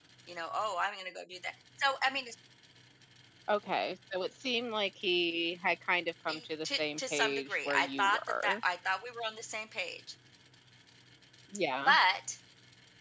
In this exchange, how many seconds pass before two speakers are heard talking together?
6 s

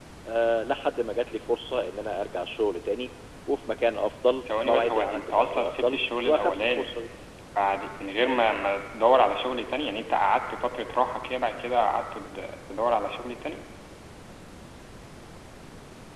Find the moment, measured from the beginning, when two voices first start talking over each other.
4 s

